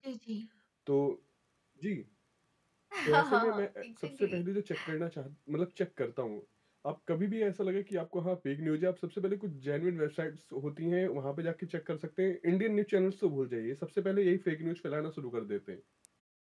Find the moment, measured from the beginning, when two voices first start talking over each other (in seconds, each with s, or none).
3.1 s